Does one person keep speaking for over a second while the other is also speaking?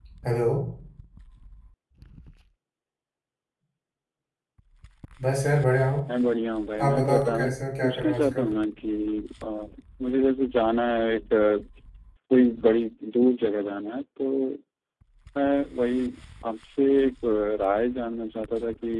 Yes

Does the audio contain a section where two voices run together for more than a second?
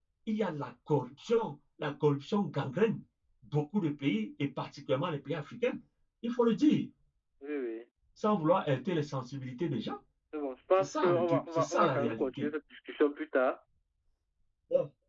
Yes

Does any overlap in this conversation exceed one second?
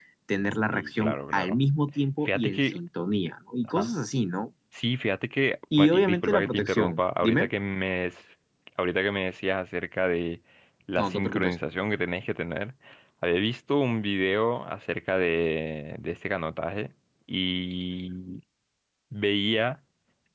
Yes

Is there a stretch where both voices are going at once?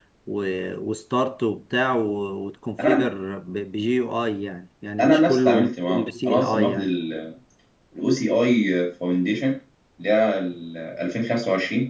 Yes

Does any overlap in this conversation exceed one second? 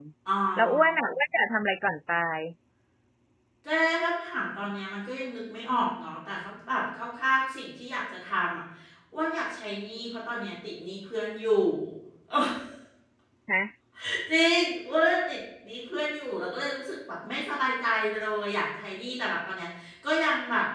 No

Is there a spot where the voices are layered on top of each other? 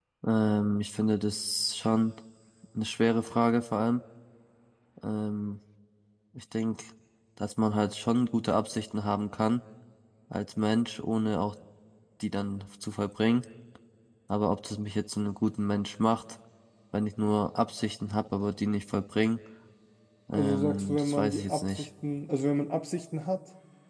Yes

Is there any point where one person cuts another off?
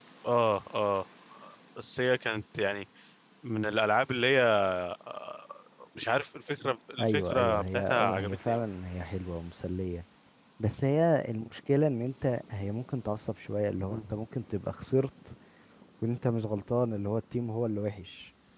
Yes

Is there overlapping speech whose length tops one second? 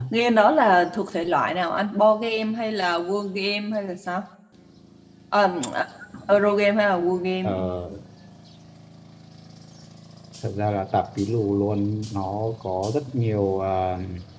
No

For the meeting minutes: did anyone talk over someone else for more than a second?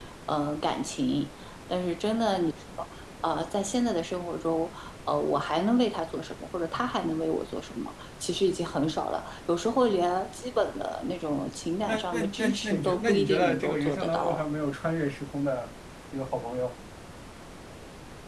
Yes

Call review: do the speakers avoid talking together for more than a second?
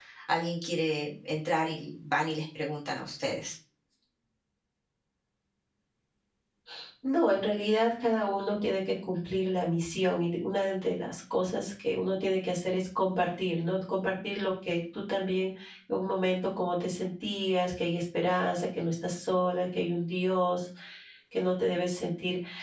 Yes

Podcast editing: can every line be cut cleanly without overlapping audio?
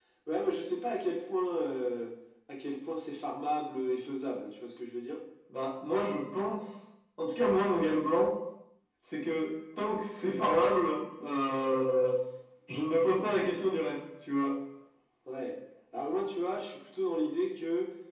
Yes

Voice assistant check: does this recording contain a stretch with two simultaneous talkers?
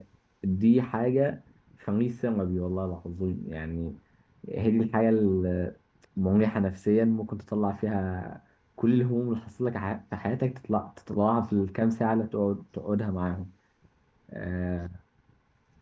No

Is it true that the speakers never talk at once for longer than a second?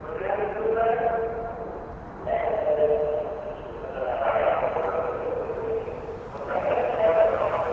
No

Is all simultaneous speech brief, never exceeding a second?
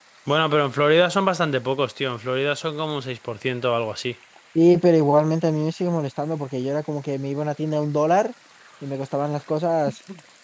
Yes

